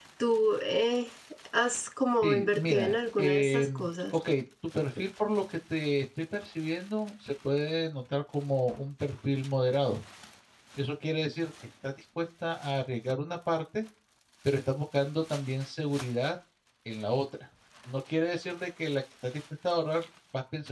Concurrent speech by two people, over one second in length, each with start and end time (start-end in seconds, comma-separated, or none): 2.2-3.7